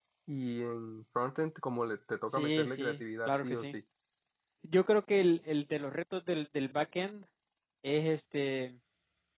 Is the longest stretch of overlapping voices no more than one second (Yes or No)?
No